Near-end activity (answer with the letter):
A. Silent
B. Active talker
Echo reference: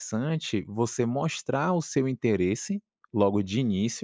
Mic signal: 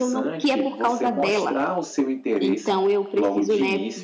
B